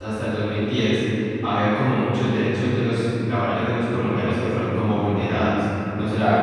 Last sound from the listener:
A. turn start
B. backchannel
B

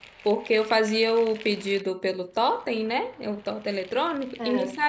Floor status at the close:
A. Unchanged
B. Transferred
A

